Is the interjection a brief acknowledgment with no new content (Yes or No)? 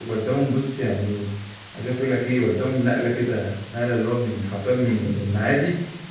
Yes